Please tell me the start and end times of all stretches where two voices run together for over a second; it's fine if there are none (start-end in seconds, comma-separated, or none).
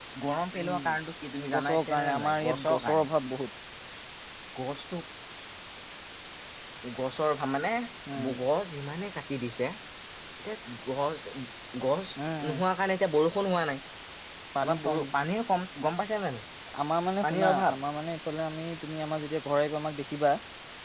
1.5-3.0